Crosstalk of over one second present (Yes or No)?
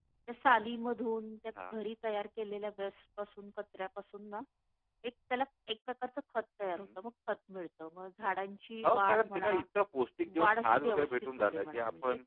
Yes